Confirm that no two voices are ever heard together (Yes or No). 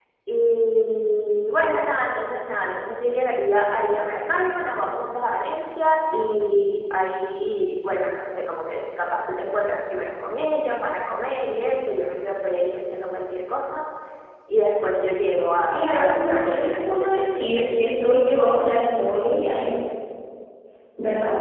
No